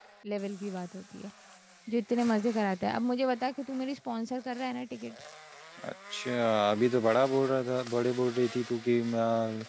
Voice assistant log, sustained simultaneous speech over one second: none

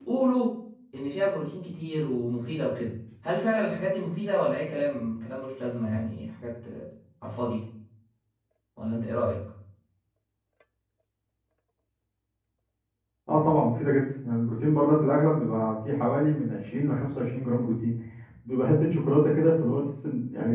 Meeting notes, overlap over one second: none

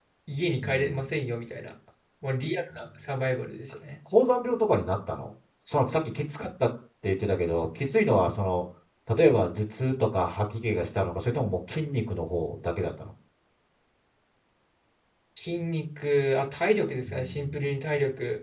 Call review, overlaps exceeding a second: none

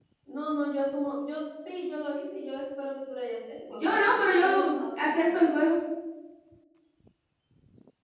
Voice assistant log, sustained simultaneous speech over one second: present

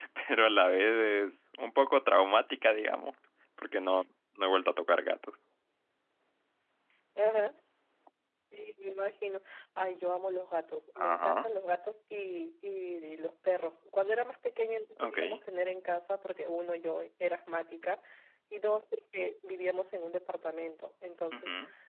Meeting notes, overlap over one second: none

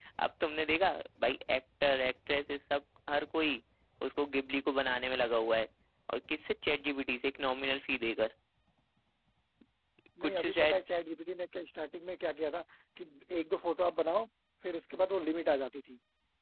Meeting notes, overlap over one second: none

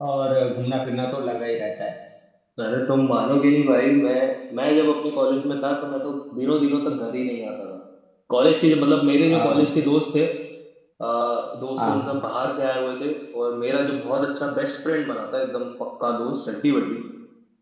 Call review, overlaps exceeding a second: none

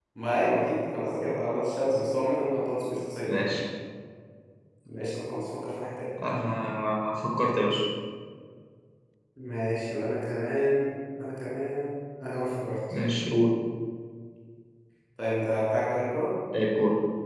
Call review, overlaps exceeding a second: none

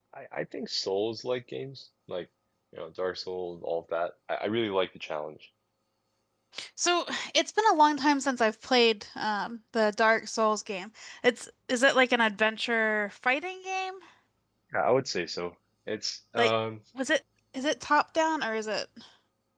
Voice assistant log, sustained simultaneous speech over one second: none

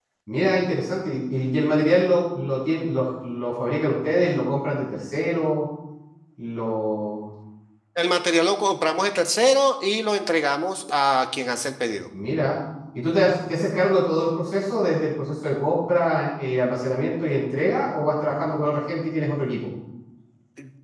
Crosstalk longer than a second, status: none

